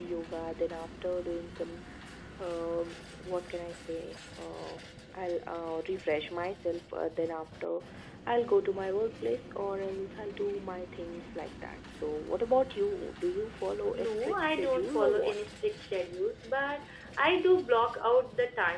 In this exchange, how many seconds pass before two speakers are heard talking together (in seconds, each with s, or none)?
13.9 s